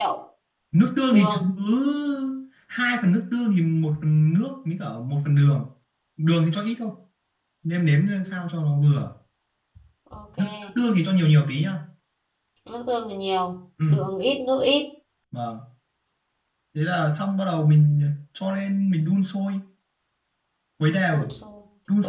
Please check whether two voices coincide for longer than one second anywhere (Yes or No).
No